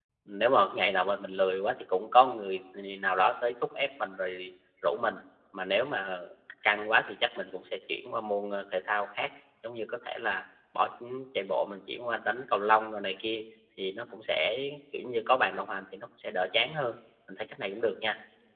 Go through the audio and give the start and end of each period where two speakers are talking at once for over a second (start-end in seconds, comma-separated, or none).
none